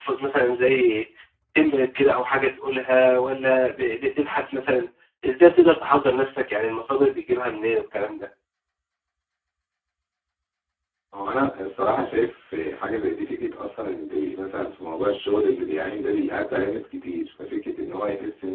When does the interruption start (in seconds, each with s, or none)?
none